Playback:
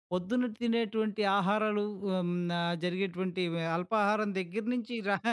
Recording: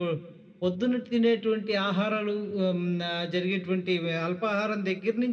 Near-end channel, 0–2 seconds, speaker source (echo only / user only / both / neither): echo only